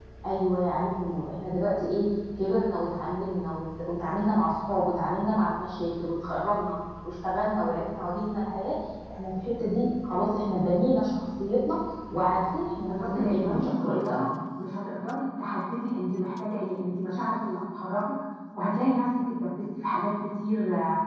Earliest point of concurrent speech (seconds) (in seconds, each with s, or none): 12.8 s